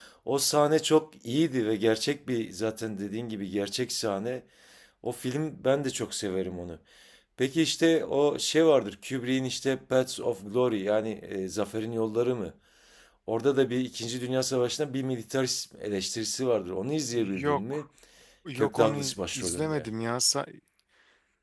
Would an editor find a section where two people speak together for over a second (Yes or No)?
Yes